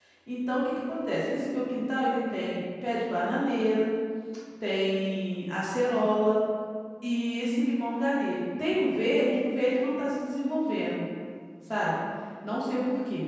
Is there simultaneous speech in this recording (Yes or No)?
No